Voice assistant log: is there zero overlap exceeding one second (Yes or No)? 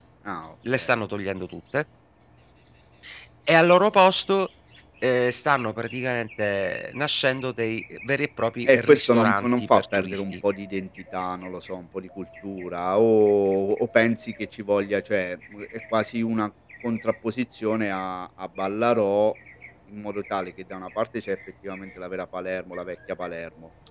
No